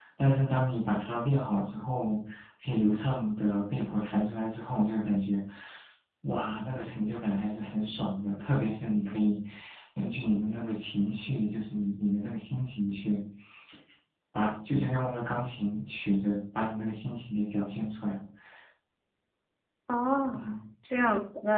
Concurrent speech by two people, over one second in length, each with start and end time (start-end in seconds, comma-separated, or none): none